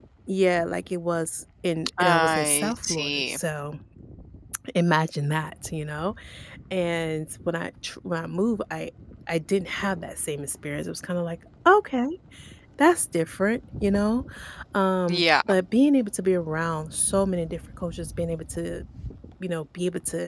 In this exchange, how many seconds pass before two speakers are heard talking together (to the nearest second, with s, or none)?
2 s